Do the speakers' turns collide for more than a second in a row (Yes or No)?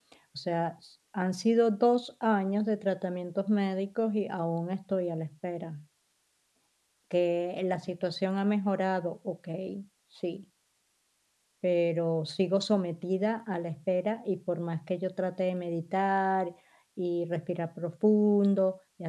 No